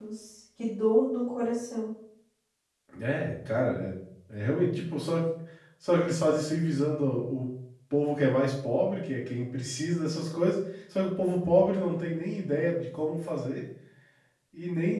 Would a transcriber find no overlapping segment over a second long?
Yes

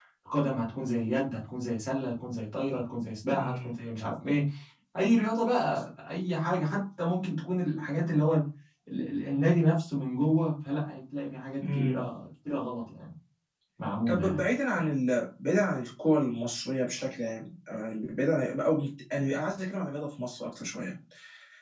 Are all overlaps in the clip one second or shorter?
Yes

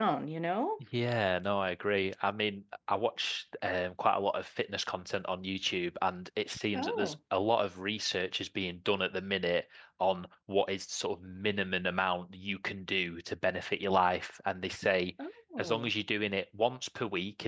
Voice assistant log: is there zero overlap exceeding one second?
Yes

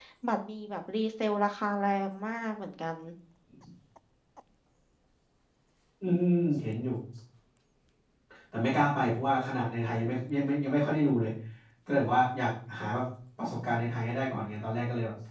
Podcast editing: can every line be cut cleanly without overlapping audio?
Yes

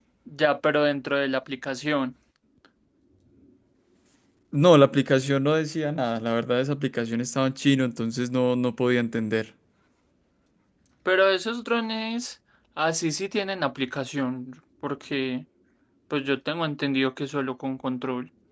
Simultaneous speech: No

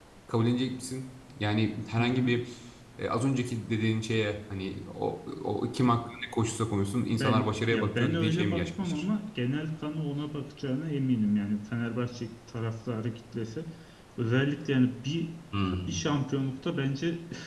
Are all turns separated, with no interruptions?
No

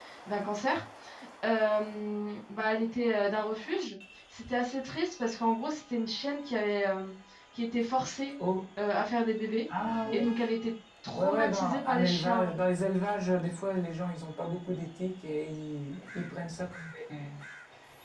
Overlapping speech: Yes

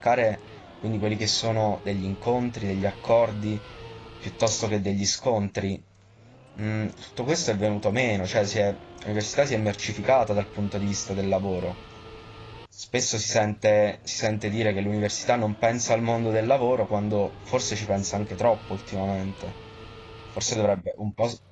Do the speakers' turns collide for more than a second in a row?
No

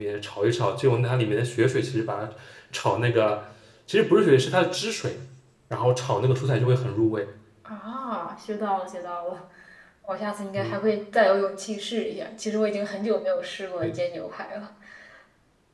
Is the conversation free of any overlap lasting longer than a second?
Yes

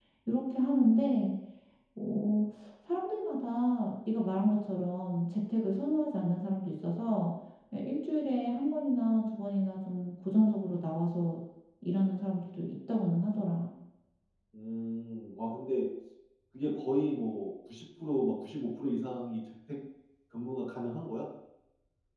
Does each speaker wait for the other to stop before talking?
Yes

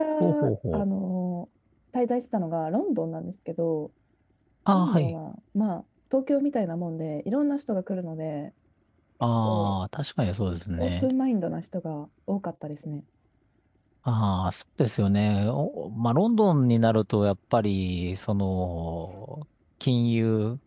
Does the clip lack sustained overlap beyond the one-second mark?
Yes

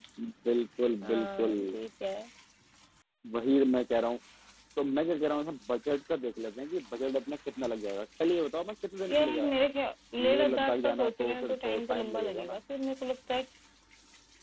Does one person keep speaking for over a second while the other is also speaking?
Yes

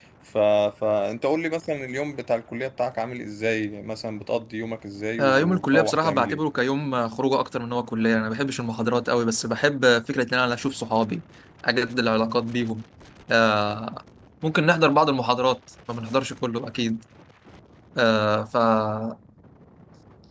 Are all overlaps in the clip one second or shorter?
No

